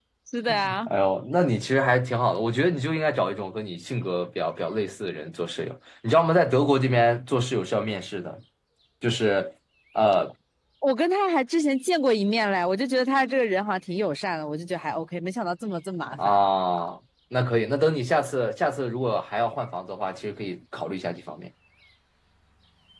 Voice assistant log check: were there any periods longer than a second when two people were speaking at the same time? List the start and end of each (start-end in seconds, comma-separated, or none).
none